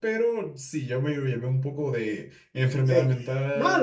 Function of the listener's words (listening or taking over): taking over